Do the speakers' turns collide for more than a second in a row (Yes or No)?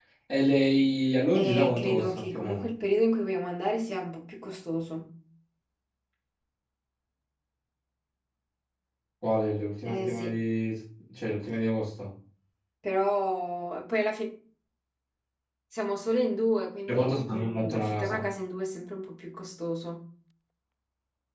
Yes